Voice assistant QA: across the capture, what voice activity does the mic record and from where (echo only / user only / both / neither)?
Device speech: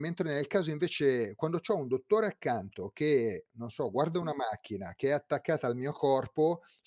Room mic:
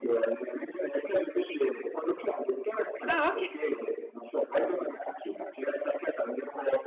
both